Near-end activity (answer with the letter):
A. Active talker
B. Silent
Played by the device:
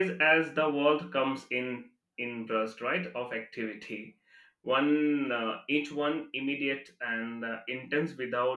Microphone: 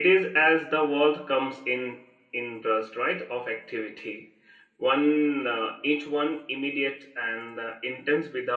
B